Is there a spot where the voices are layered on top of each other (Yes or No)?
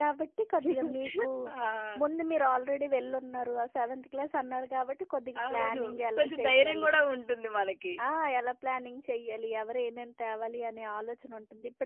Yes